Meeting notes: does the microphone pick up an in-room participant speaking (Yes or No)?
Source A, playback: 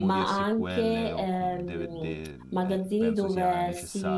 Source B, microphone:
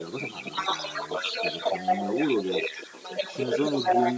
Yes